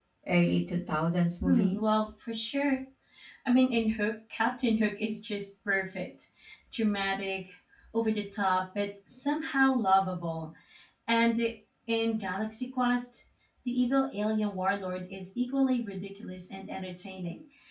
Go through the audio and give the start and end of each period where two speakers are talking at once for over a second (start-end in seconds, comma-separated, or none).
none